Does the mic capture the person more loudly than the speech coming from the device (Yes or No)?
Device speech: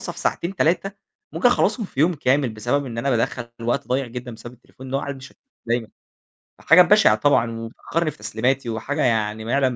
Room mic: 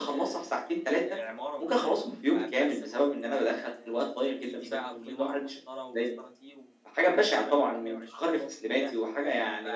No